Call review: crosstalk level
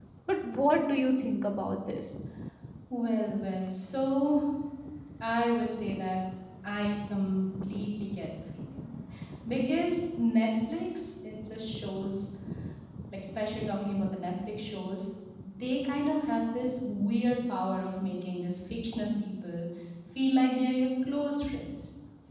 none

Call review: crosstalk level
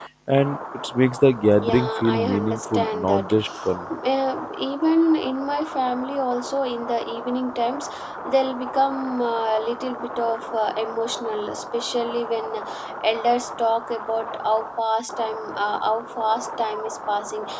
present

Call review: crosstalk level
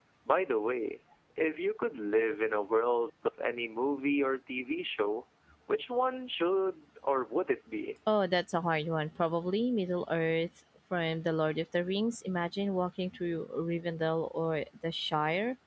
none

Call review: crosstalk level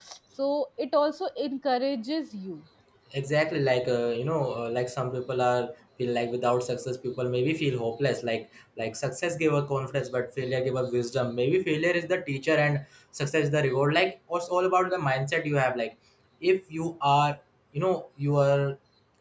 none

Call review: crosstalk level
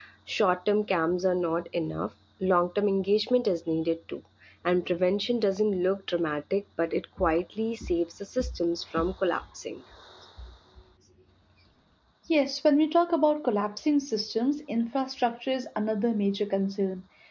none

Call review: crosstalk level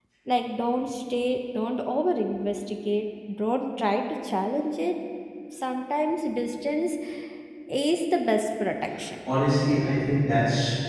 none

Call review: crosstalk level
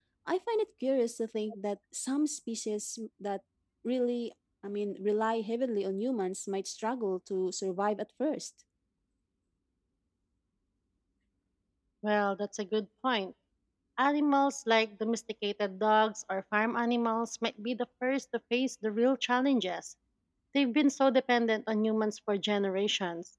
none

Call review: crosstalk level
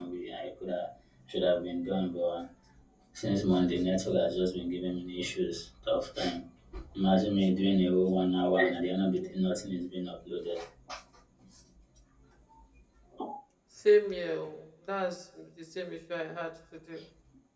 none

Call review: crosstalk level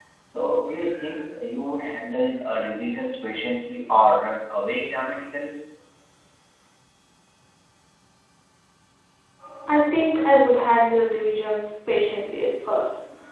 none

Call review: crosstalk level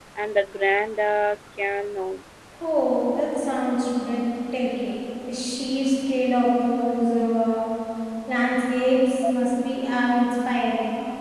none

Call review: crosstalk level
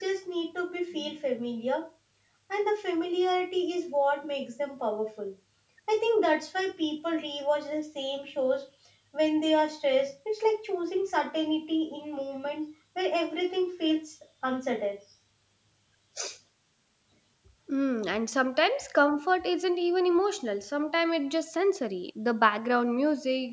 none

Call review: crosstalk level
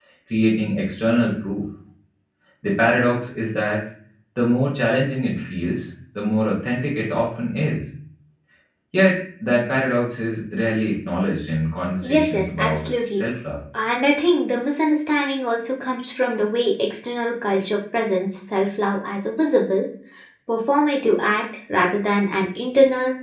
present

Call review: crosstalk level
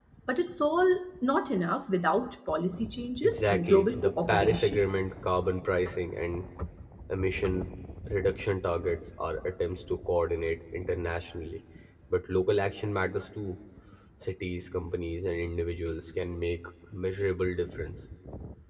present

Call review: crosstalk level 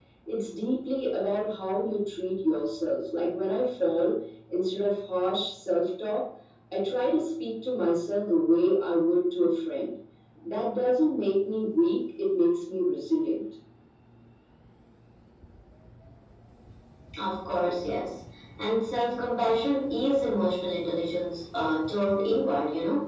none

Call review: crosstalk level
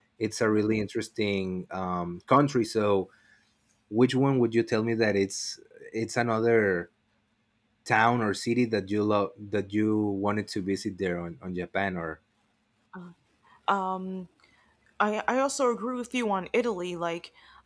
none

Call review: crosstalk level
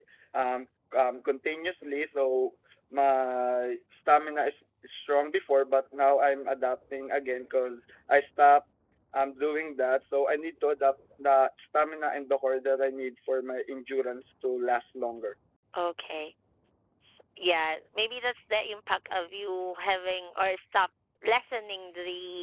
none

